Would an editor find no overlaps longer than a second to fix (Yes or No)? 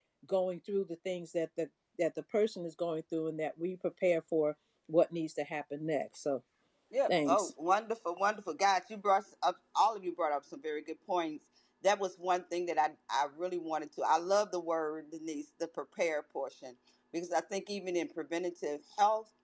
Yes